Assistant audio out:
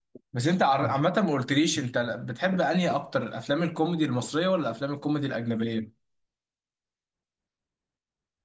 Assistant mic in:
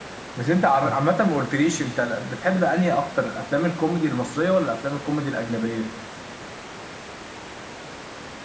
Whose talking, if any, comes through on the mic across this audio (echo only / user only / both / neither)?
echo only